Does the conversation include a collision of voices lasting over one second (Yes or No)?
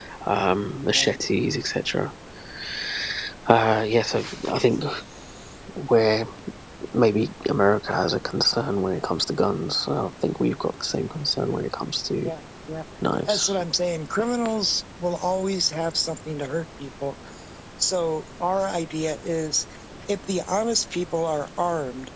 No